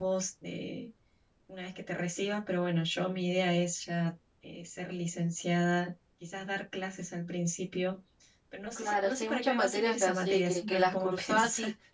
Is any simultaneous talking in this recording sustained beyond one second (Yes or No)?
Yes